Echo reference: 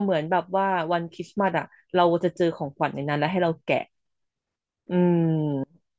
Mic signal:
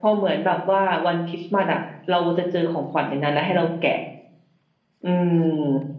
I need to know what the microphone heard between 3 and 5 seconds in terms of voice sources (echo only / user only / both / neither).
echo only